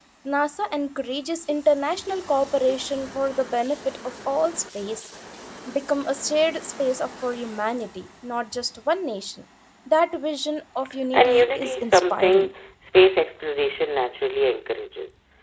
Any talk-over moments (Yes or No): Yes